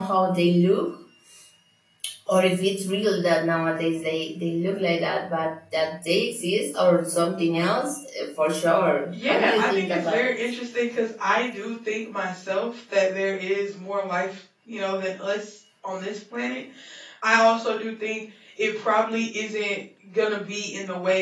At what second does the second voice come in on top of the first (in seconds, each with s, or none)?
9.1 s